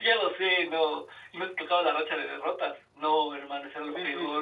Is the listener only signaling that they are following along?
No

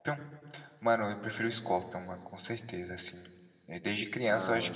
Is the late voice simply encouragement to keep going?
No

